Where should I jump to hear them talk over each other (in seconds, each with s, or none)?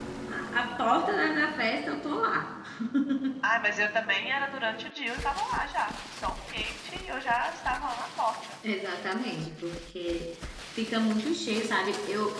none